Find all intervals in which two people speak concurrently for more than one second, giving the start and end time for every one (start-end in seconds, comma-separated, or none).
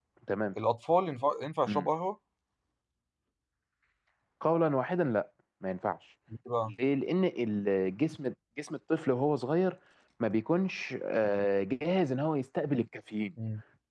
none